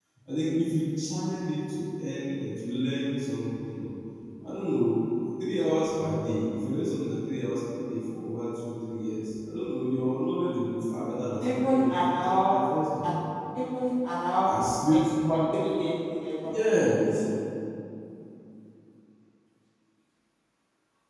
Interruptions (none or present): present